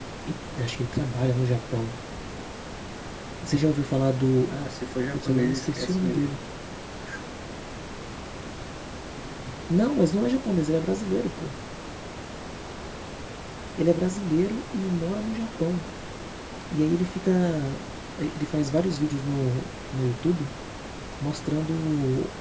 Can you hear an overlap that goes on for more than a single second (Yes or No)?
Yes